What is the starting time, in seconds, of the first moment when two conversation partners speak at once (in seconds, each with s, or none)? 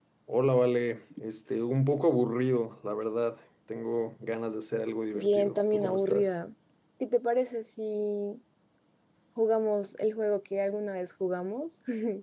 5.1 s